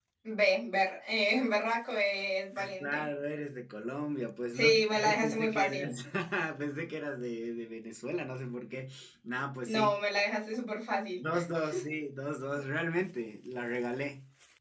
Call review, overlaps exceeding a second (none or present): present